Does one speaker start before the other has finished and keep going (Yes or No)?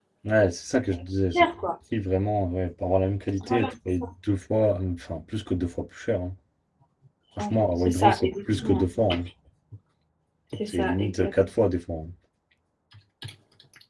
Yes